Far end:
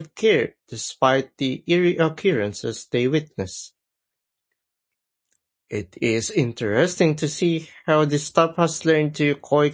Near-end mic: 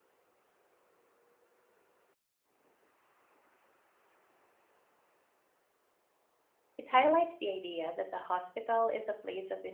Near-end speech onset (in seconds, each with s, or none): 6.8 s